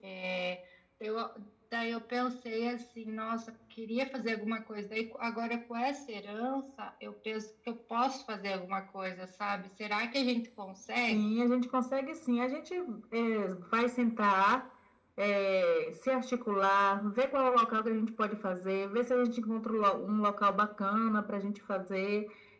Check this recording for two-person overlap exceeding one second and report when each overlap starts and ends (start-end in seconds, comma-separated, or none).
none